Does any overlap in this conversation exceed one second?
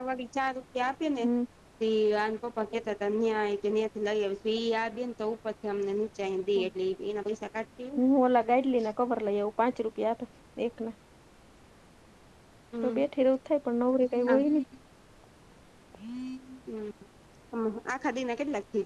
No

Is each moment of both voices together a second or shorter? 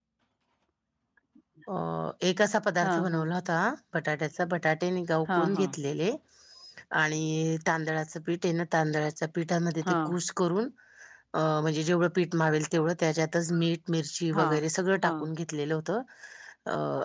Yes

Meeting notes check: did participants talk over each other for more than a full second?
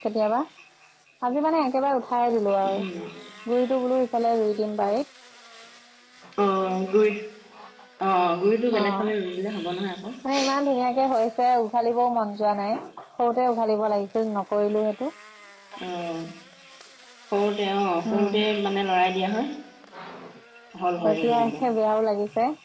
No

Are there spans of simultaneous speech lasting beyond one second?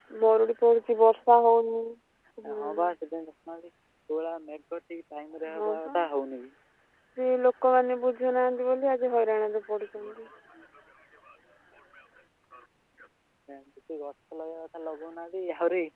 No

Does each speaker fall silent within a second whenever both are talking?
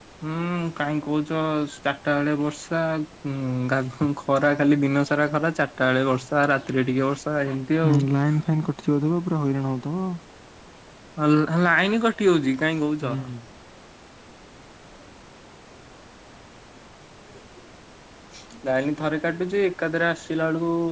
Yes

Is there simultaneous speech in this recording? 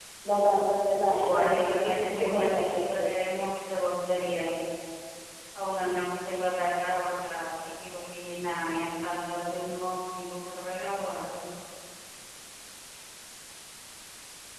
Yes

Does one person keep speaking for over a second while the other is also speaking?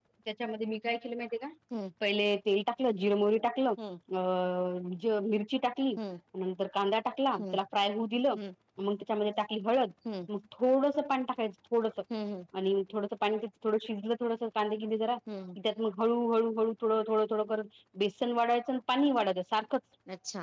No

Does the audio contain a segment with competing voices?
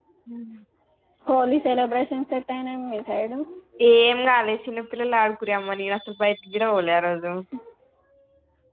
No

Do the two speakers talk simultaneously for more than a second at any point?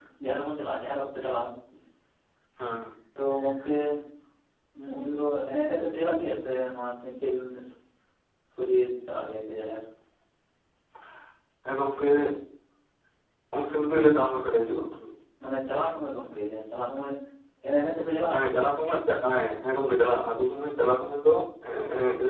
No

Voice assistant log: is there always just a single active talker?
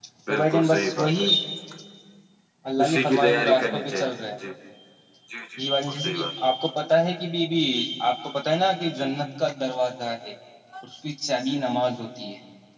No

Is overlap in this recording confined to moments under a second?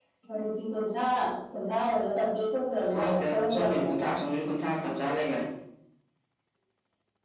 No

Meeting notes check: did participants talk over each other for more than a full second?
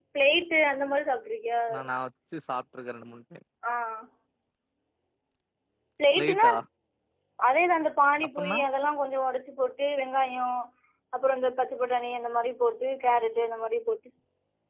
No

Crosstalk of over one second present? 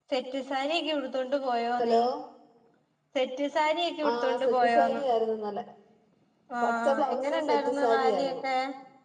Yes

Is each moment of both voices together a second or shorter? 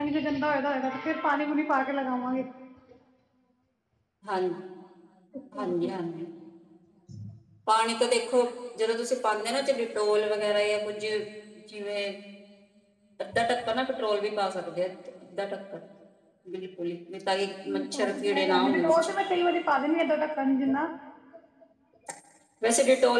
No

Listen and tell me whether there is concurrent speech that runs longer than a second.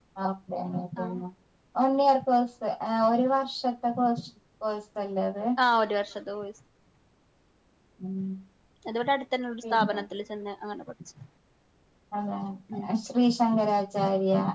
No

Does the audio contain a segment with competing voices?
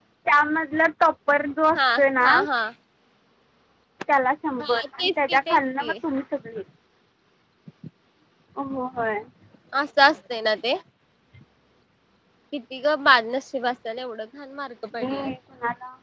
Yes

